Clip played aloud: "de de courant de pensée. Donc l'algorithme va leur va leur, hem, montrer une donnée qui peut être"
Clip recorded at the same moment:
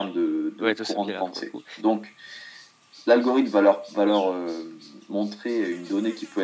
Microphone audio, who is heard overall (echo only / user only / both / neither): both